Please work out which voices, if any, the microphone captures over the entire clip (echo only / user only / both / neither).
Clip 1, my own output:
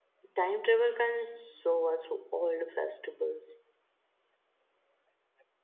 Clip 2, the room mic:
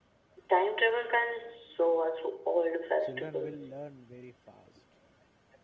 both